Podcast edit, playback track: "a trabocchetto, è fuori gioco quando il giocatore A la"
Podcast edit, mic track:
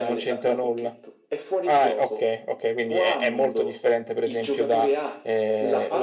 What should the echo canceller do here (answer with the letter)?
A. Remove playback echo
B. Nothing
A